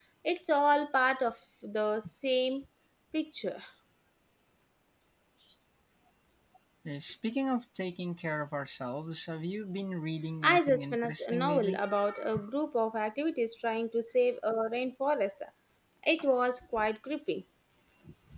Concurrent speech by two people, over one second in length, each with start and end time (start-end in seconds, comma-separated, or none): 10.4-11.8